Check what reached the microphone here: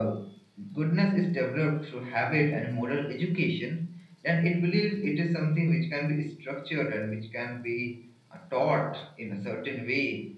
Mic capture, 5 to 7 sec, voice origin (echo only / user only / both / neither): echo only